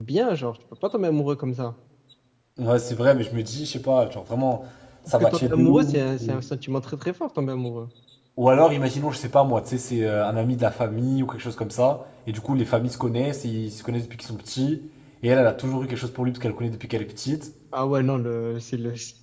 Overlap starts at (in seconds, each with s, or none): 5.1 s